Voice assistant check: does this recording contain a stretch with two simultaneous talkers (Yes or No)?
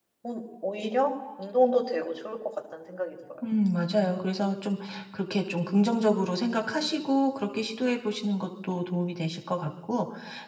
No